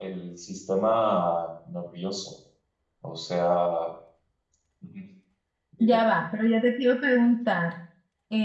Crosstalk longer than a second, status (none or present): none